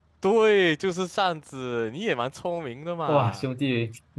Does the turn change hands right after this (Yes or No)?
Yes